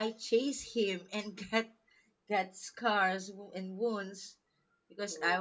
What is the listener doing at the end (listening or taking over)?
listening